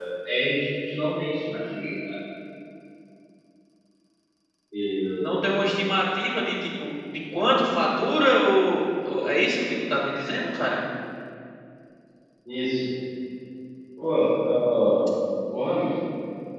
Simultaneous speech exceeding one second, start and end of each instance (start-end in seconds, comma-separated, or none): none